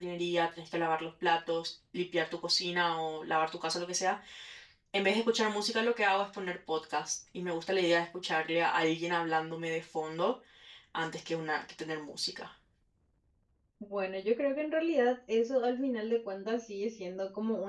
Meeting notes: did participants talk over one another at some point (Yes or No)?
No